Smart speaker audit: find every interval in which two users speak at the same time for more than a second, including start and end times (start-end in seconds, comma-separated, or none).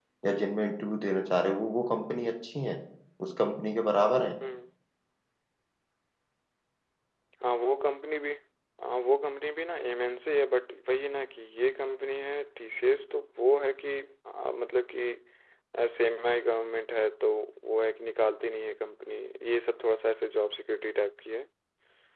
none